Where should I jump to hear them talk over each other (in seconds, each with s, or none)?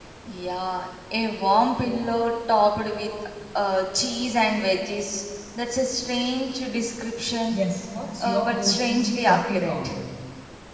8.2 s